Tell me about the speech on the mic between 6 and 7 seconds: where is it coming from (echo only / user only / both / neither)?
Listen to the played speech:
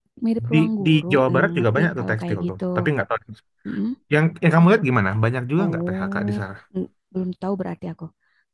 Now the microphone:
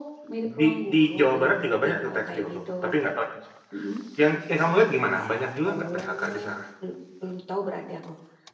echo only